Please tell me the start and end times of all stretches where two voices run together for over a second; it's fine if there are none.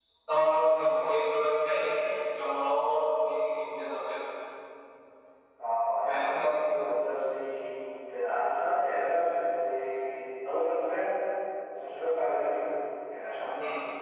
none

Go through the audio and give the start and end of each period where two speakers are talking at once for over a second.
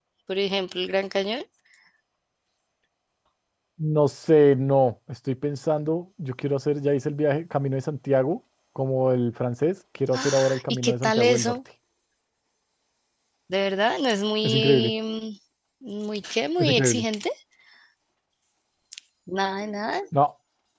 10.1-11.6

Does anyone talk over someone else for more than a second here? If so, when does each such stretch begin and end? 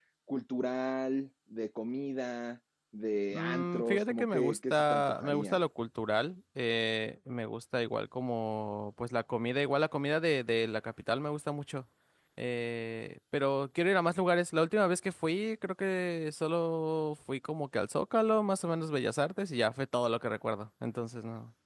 3.3-5.6

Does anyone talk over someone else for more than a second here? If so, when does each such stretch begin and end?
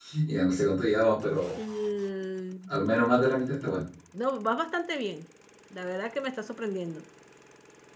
none

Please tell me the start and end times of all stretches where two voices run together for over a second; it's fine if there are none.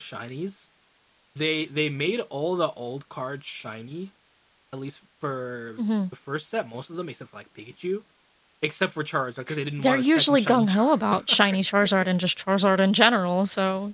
9.8-11.4

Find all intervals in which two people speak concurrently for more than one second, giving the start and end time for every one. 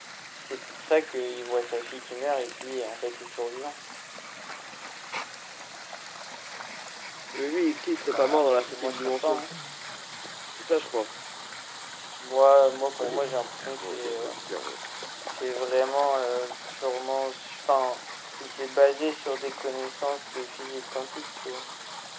8.0-9.4

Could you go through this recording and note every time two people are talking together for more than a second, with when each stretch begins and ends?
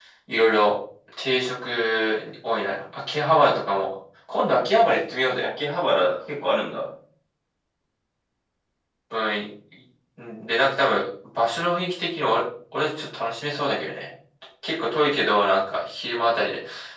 none

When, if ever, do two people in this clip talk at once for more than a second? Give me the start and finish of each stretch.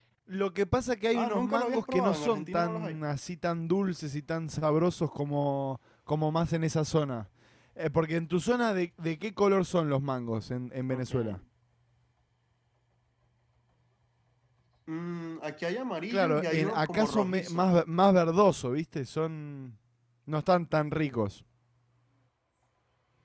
1.1-3.0, 16.1-17.6

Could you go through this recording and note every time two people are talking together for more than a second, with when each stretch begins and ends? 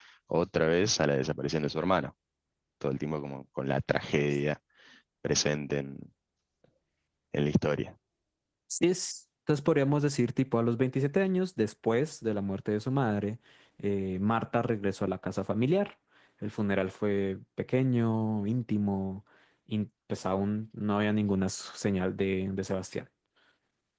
none

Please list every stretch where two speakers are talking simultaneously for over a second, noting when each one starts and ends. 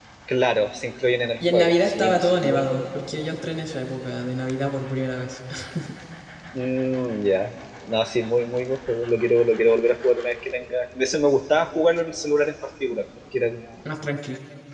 1.5-2.9

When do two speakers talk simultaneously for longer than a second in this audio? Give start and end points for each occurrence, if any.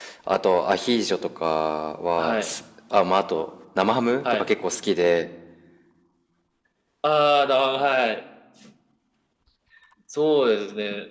none

